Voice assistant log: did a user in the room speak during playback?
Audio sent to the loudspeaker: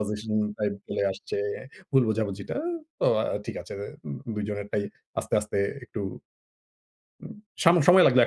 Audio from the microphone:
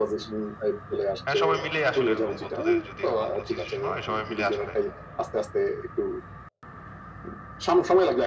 Yes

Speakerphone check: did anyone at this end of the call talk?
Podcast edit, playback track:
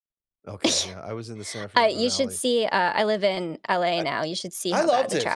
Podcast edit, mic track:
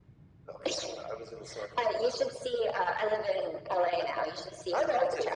No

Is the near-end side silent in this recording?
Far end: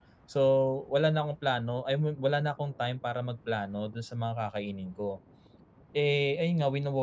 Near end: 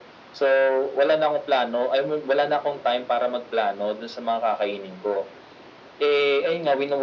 Yes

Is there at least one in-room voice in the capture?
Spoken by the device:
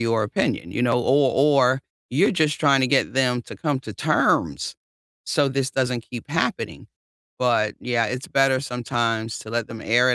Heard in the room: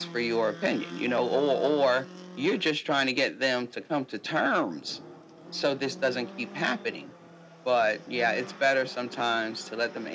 No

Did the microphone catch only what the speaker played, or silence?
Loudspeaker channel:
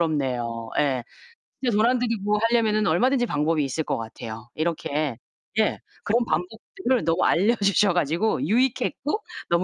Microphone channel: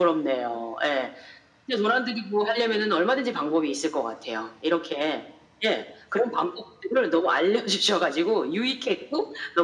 Yes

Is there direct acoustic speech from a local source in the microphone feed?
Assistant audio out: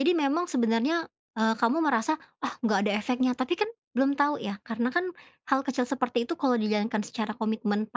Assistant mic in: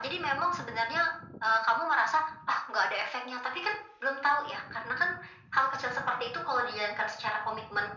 No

